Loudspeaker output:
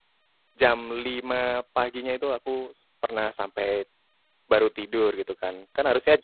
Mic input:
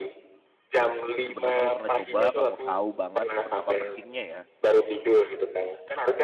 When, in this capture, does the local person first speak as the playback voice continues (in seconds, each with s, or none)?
1.2 s